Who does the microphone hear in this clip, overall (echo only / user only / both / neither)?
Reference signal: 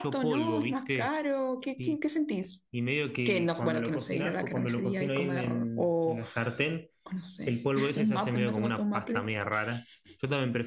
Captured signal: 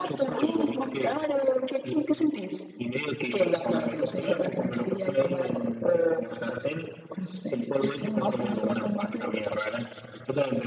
echo only